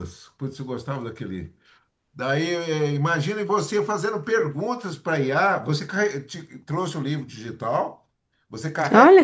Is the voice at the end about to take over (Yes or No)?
No